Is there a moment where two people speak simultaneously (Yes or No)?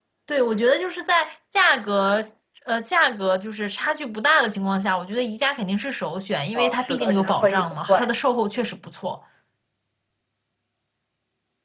Yes